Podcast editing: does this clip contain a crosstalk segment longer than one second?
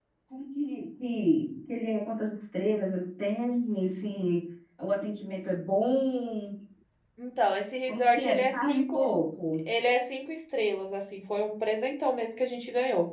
Yes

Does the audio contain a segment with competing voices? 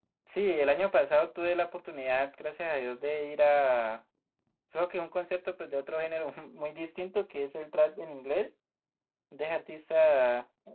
No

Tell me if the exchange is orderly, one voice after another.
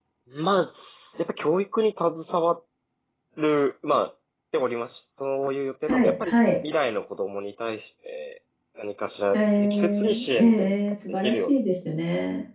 No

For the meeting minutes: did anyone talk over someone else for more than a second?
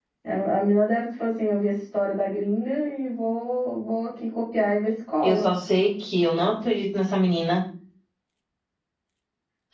No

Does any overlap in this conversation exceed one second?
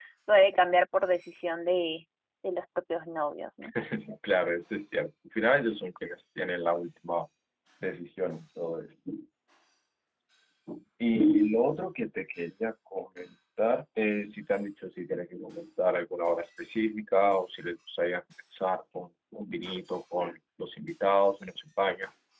No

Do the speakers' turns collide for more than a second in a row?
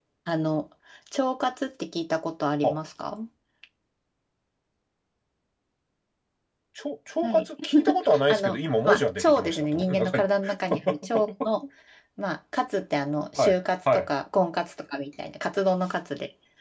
Yes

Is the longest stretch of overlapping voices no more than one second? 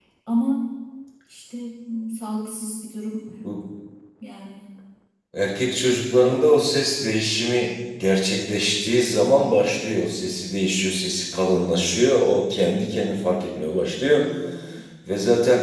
Yes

